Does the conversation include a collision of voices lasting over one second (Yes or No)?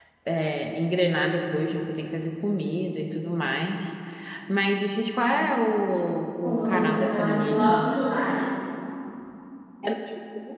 Yes